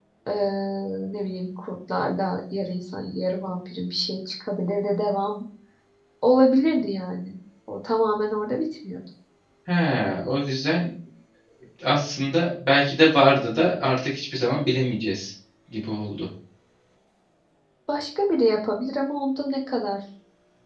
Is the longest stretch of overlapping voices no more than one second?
Yes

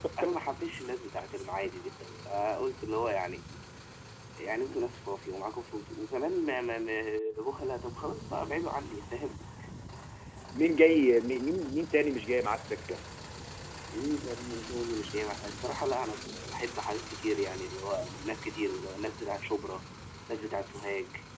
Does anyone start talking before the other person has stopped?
No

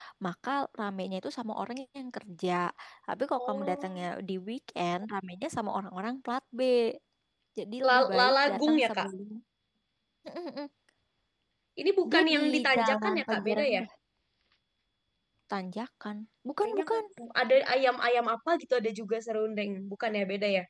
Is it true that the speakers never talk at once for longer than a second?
No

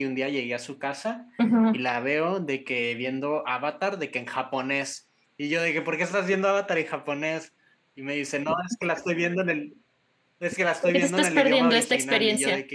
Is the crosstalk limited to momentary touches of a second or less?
No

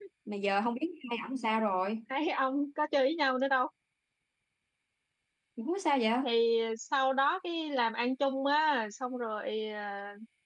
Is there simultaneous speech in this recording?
No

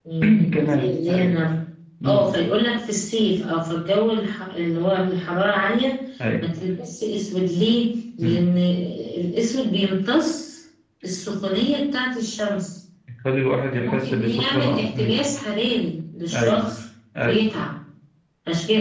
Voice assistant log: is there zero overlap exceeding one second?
No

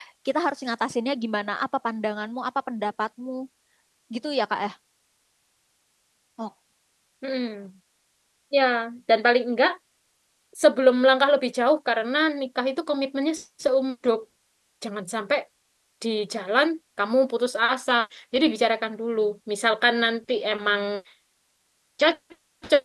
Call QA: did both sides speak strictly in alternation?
Yes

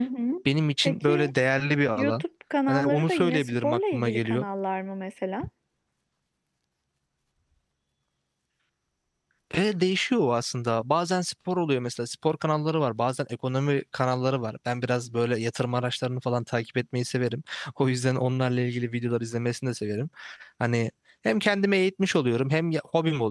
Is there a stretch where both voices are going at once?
Yes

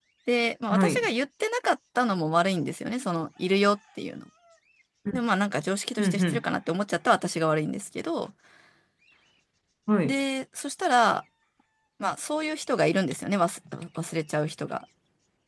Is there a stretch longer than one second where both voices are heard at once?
No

